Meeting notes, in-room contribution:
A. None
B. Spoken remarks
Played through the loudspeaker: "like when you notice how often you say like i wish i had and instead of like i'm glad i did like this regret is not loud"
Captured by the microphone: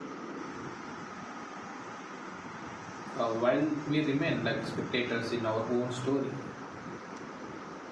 B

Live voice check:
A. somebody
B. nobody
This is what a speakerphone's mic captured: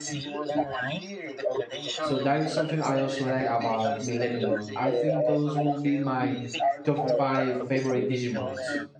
A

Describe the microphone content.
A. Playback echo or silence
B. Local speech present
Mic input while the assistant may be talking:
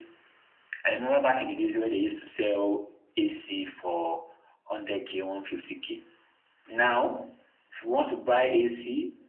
A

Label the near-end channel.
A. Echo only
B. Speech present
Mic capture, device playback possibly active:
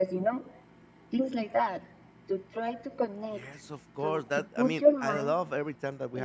B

